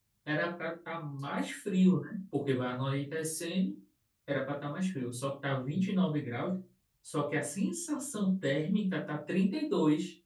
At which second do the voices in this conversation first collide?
none

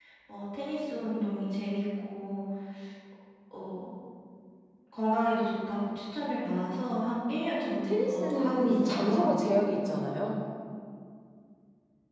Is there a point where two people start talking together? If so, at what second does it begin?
7.7 s

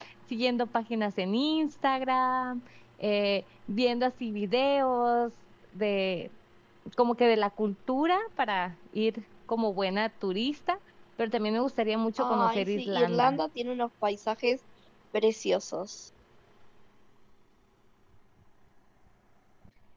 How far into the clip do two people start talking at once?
12.2 s

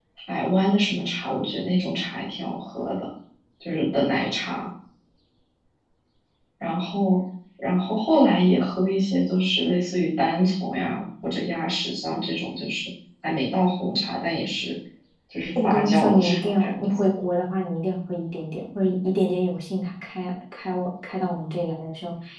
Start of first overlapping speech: 15.6 s

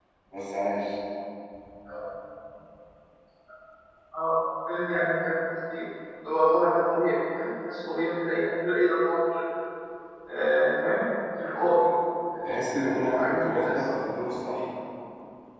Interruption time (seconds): 12.4 s

